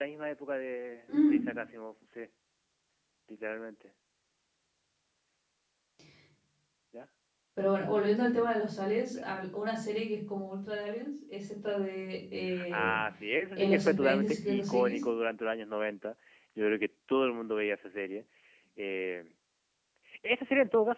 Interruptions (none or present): present